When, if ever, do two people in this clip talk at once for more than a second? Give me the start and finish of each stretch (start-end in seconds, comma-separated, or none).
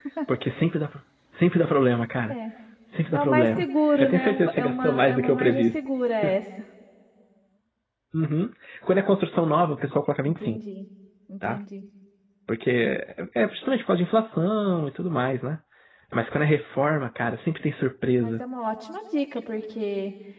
3.1-5.8